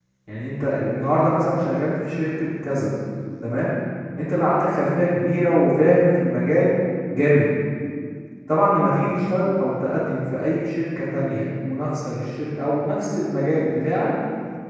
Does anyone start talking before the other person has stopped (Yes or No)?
No